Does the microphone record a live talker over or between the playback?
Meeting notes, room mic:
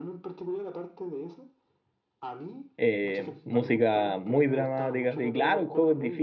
Yes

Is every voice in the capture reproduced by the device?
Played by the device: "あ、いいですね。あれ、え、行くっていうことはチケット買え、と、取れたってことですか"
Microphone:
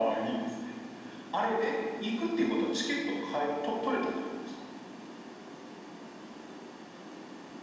Yes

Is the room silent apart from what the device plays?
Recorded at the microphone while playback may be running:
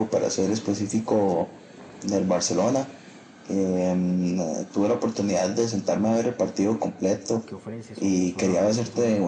No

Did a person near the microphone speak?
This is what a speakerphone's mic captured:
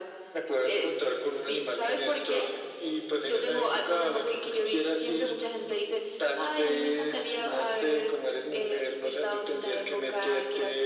No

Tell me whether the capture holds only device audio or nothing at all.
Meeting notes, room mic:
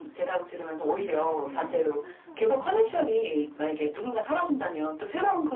No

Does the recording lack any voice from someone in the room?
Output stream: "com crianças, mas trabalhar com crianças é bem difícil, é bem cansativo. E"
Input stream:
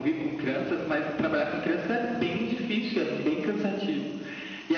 Yes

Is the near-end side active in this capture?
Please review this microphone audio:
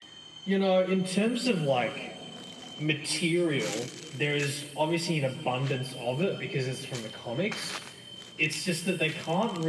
No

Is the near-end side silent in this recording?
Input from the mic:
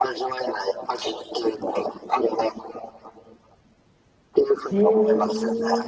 No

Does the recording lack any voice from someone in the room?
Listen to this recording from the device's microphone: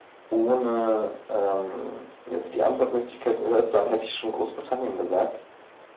Yes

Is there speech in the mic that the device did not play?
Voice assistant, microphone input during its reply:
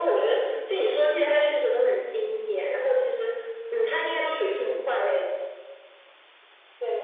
No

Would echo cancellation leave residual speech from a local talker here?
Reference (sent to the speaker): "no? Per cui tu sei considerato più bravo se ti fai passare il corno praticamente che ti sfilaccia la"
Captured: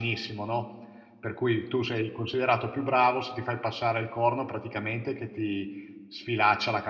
No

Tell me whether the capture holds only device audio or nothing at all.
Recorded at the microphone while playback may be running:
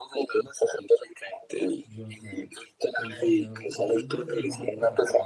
No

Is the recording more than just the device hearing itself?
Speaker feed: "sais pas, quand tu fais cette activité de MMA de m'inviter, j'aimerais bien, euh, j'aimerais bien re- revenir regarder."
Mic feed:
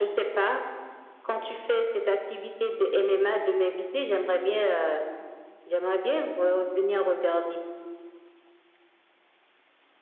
No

